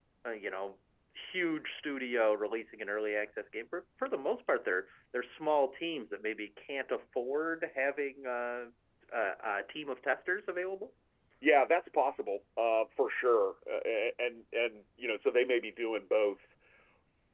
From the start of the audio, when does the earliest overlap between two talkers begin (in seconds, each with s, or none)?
none